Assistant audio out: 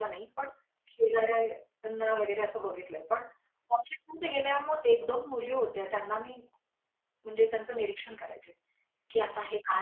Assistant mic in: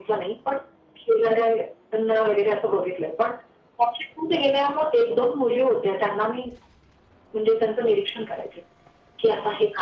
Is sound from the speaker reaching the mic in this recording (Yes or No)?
Yes